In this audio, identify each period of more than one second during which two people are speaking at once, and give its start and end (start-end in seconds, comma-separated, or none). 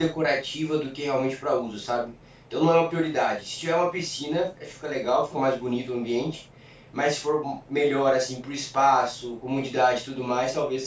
none